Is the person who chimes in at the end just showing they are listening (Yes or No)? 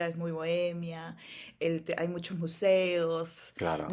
Yes